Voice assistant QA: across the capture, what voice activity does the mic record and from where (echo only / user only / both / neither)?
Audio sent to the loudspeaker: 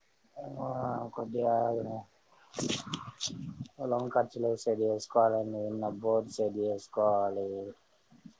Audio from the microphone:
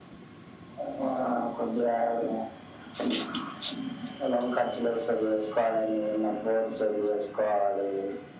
echo only